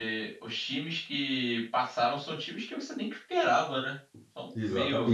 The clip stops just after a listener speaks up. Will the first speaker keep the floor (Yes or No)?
No